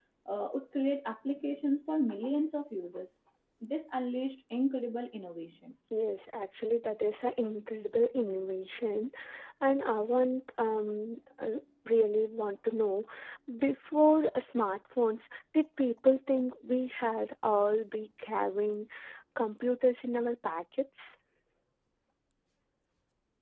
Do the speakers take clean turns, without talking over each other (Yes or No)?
Yes